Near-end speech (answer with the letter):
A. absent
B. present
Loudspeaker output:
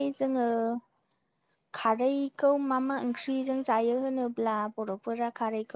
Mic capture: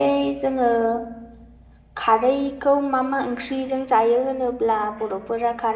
A